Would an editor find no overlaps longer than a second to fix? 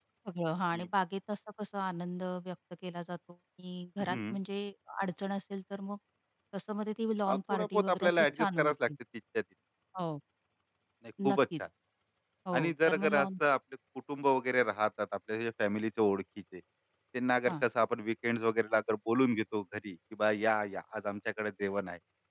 No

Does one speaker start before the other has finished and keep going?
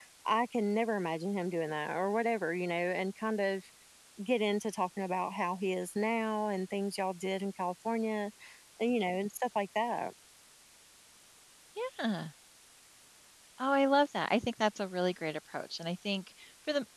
No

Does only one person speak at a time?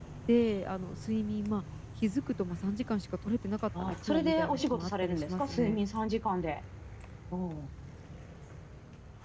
No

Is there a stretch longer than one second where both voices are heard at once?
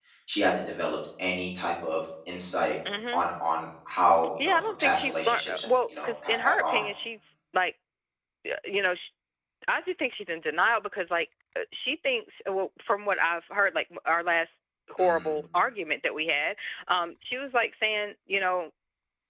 Yes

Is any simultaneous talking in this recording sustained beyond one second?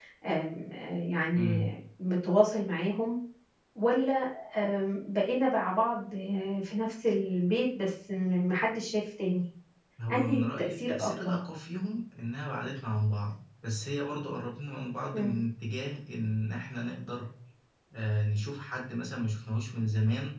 Yes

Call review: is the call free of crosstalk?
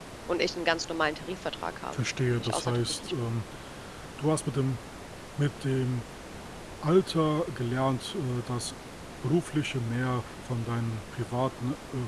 No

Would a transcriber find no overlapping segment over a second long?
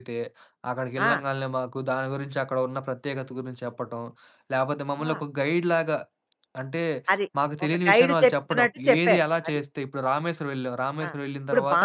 No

